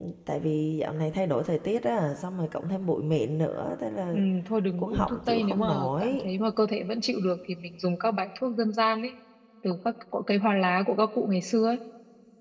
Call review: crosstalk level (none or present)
present